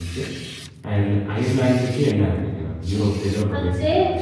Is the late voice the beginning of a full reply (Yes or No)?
Yes